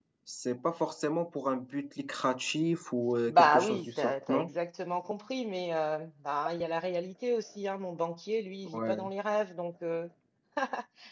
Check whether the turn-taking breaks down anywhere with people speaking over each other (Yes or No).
Yes